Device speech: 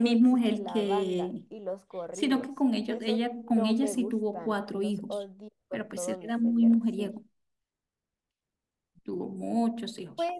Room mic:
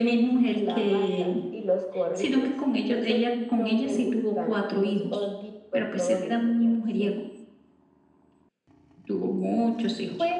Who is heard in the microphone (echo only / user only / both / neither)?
echo only